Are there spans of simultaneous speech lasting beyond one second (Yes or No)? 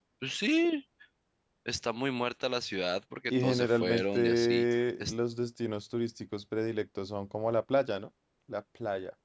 Yes